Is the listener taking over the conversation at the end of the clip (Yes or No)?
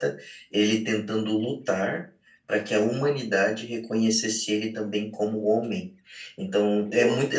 No